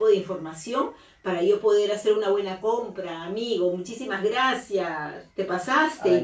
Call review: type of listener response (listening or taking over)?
taking over